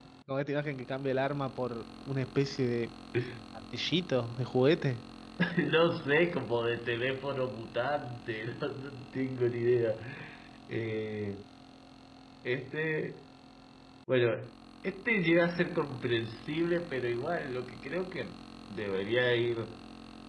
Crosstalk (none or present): none